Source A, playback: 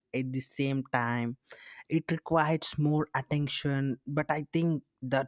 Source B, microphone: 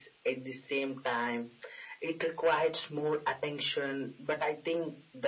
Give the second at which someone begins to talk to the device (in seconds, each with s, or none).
none